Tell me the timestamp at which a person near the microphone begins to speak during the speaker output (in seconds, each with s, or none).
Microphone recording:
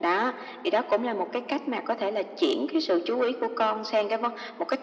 none